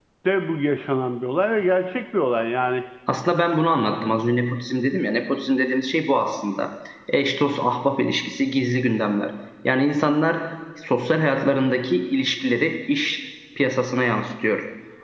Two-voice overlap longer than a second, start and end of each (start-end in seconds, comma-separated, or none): none